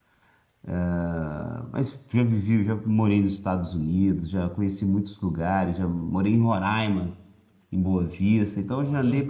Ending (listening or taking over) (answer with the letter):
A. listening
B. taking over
A